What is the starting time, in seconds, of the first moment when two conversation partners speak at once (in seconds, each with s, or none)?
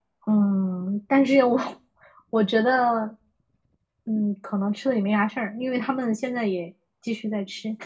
none